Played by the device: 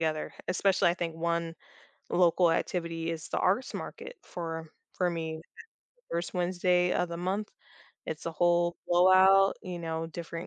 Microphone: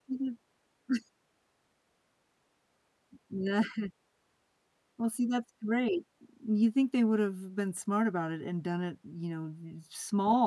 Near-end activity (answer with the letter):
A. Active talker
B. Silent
A